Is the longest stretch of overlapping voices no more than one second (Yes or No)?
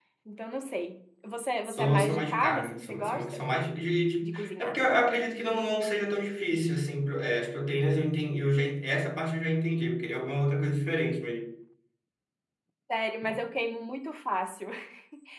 No